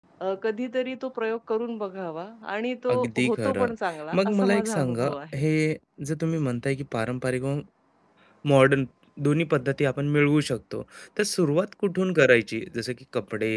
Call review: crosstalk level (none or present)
present